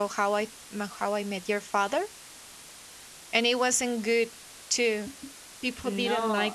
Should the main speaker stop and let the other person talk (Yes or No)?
Yes